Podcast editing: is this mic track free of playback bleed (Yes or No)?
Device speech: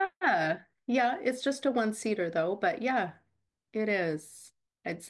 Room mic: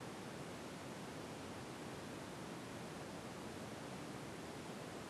Yes